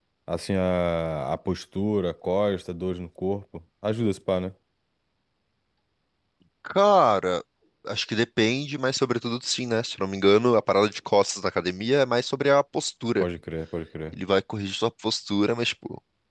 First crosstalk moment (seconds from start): none

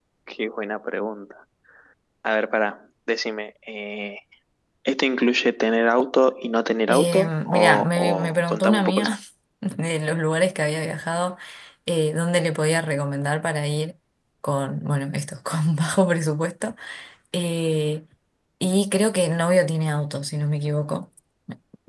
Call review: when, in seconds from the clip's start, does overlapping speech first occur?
6.9 s

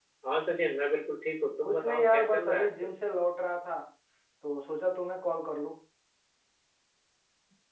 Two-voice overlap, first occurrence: 1.6 s

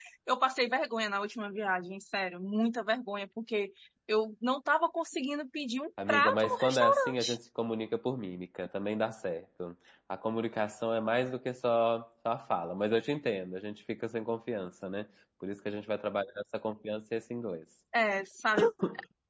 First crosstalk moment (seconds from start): 6.0 s

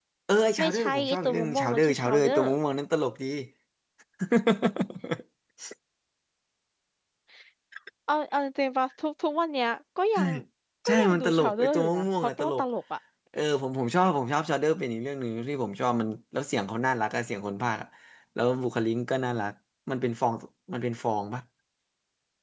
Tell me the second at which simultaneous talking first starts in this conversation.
0.6 s

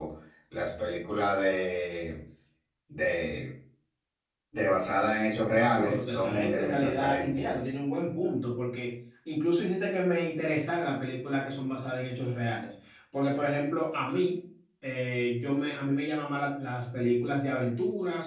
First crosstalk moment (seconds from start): 5.6 s

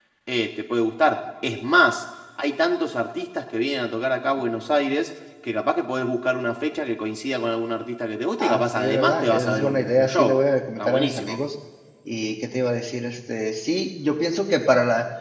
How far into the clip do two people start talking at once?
8.4 s

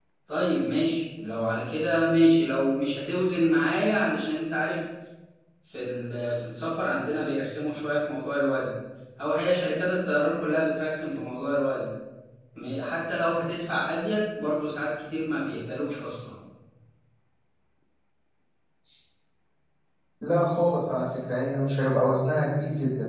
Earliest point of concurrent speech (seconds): none

